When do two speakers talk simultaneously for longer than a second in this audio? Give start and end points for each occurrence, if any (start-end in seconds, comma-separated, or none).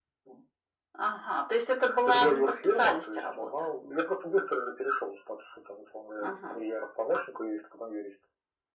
2.0-3.5